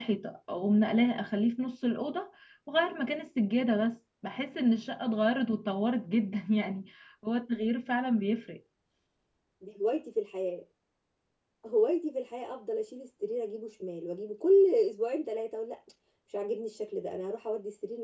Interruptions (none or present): none